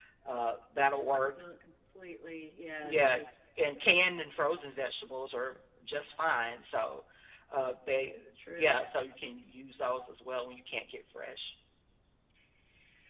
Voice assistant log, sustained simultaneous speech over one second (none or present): none